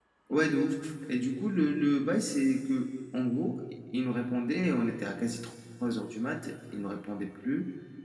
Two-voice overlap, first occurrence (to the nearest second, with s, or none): none